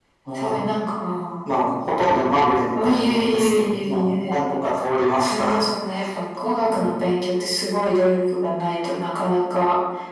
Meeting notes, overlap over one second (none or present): present